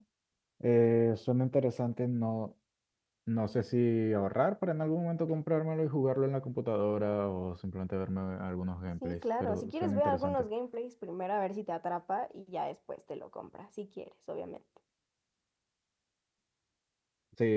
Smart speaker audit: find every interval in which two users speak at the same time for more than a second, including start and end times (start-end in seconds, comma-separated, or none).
9.0-10.4